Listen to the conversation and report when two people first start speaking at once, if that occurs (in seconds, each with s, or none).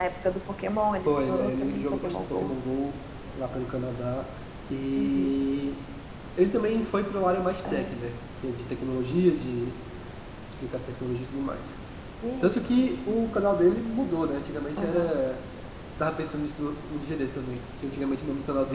1.1 s